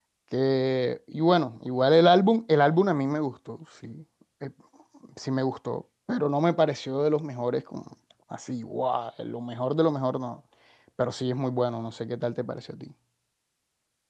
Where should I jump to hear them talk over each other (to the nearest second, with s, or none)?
none